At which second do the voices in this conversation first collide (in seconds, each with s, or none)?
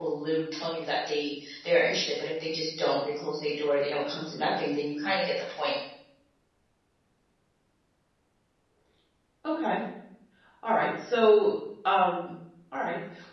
none